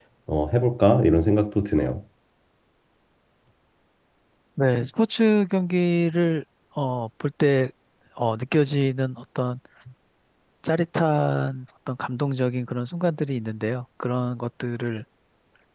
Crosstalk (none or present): none